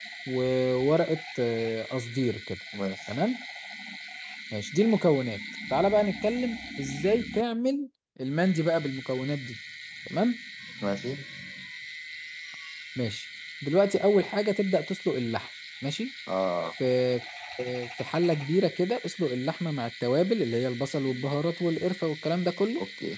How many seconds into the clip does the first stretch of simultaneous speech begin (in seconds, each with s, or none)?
none